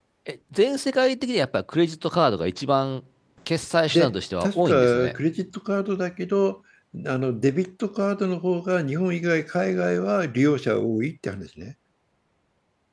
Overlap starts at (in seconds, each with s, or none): 3.9 s